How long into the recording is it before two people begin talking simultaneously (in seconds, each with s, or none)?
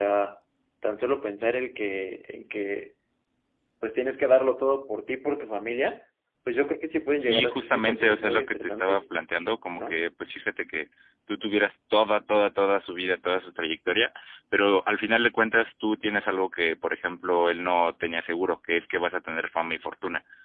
7.2 s